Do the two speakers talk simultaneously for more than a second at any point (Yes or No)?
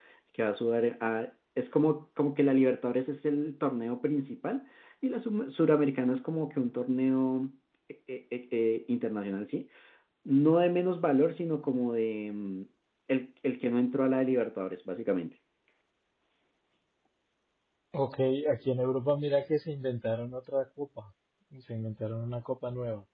No